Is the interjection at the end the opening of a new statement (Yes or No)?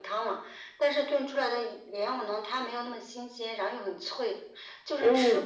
No